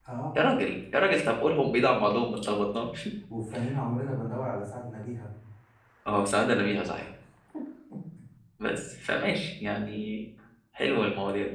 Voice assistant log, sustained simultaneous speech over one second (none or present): none